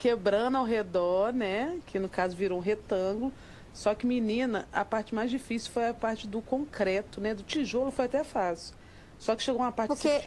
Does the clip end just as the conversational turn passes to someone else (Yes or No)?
No